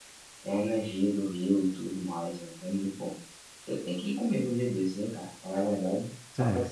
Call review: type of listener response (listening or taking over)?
taking over